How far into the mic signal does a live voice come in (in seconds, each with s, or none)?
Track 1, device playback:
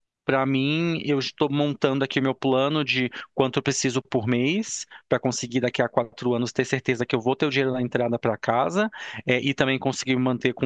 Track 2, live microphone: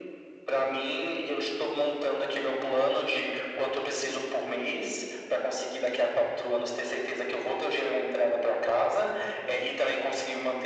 none